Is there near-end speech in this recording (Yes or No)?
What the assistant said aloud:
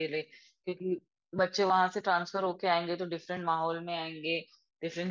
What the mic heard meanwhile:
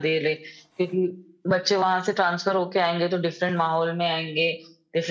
No